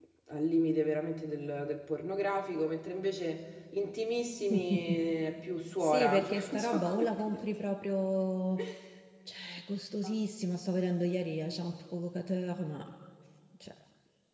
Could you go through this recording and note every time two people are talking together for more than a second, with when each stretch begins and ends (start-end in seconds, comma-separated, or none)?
5.8-7.4